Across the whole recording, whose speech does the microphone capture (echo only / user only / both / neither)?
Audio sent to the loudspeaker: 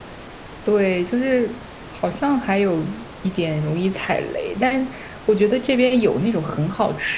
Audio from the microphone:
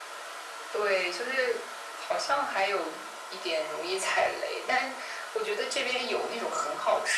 echo only